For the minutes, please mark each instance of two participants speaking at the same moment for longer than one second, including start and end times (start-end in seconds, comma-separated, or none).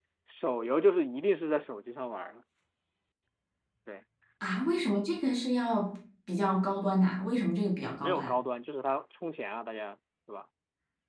none